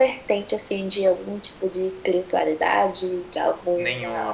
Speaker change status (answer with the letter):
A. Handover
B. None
A